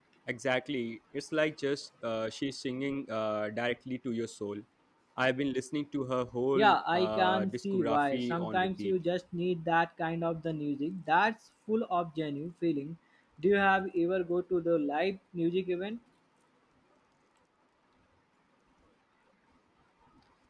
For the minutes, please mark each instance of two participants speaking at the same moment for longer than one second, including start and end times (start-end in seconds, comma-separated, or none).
6.5-8.9